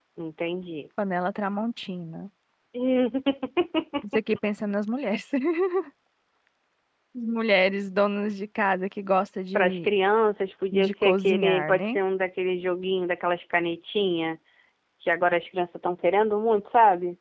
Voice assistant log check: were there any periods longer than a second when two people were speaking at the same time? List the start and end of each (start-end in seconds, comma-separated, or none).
10.7-12.0